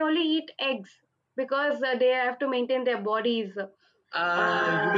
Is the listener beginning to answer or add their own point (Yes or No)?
Yes